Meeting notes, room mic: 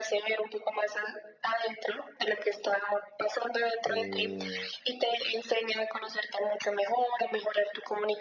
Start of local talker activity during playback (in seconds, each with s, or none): 3.9 s